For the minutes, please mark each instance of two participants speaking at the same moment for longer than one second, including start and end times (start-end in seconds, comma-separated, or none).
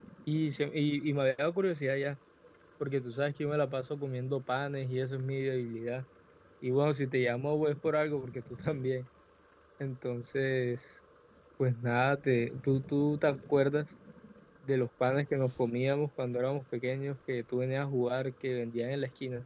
none